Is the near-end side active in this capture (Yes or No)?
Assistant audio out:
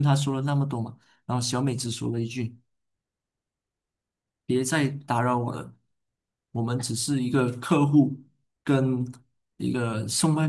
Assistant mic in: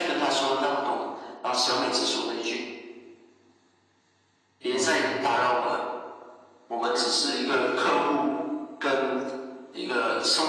Yes